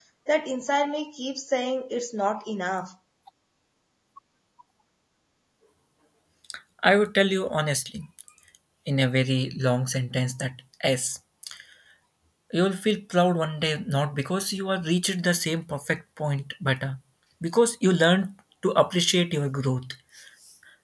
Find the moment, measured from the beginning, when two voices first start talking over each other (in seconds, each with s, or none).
none